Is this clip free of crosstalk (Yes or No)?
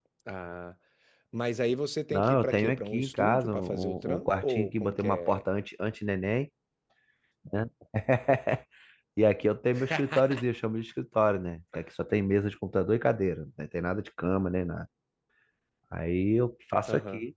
No